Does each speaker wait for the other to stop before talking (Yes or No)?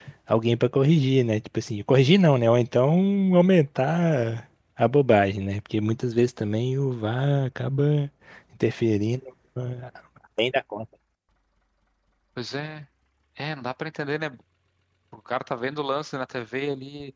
Yes